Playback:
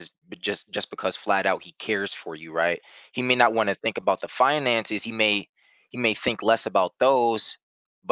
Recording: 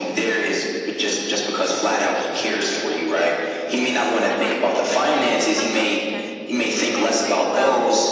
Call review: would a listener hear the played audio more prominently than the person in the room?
Yes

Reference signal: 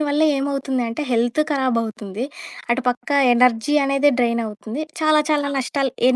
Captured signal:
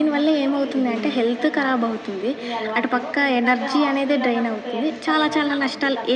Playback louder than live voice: Yes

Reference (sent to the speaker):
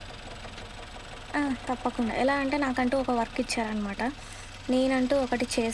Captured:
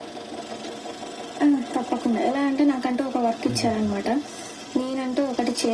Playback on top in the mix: Yes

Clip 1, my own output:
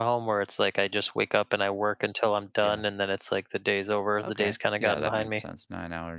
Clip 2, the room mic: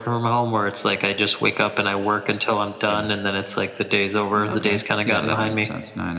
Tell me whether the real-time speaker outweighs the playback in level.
No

